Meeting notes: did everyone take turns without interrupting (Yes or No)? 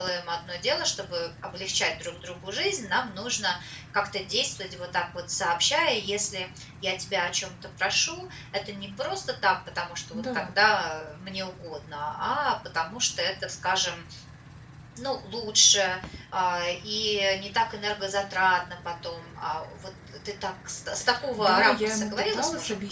No